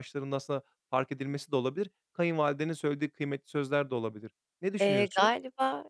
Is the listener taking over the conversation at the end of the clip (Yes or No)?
Yes